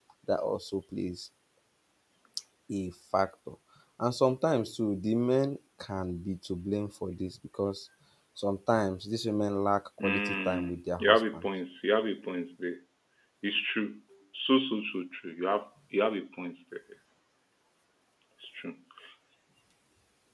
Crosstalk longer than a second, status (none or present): present